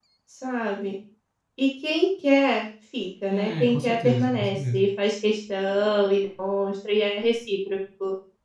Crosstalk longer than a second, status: present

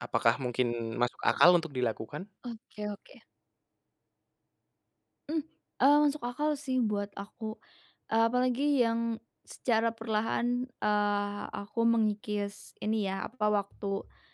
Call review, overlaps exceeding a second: none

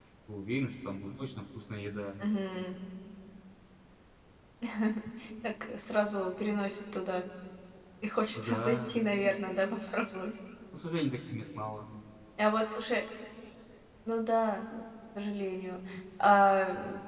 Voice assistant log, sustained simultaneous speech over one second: none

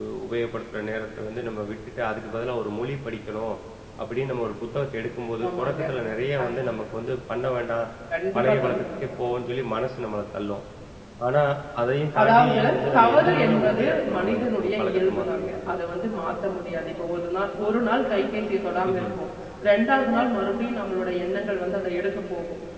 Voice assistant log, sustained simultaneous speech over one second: present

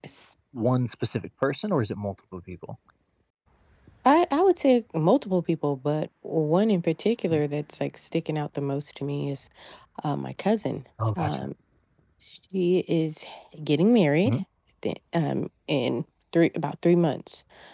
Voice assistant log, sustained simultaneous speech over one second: none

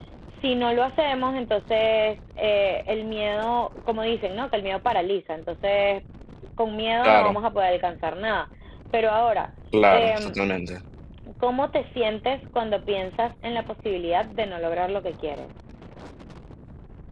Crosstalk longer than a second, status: none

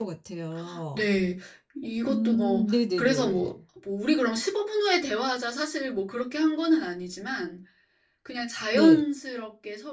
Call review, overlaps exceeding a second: present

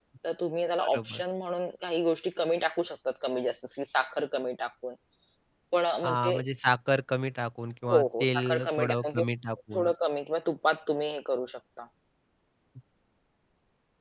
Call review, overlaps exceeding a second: present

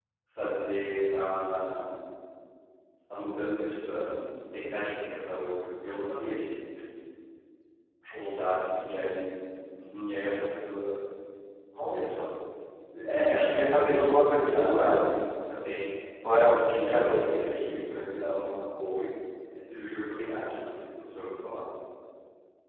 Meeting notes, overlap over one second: present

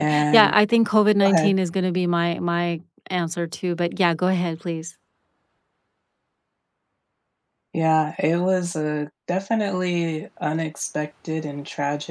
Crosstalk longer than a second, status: none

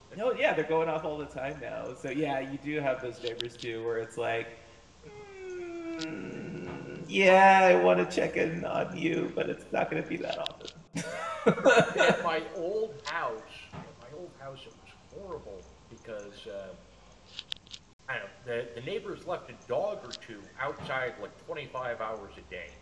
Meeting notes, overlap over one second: none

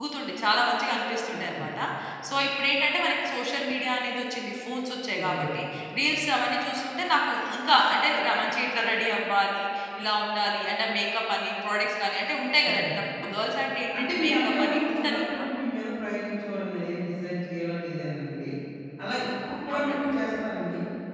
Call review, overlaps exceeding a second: present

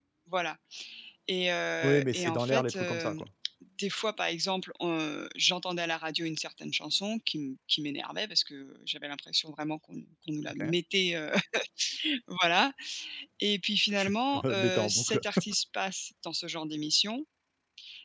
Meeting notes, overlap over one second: present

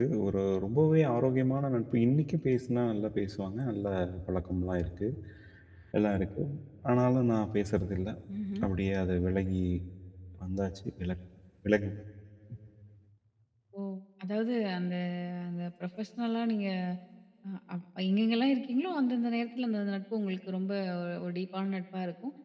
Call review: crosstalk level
none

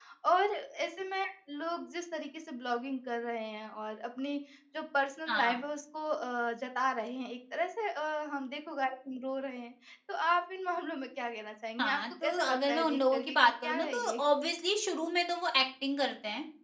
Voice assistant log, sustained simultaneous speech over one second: present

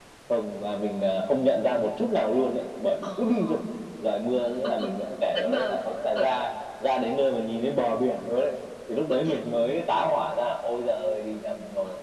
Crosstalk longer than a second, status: none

